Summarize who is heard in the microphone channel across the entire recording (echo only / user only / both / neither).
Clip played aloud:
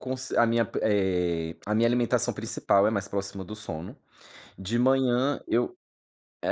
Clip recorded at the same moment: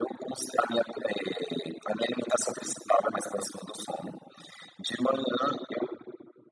echo only